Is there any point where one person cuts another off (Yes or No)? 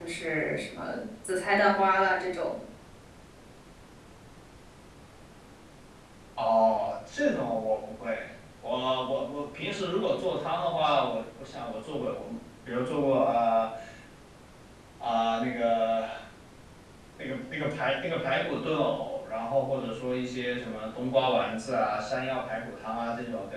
No